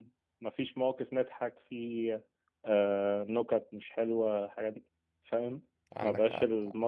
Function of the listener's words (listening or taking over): listening